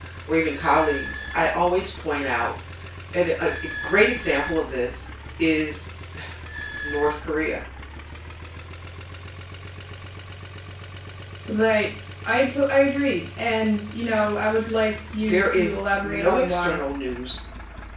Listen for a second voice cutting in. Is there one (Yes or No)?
Yes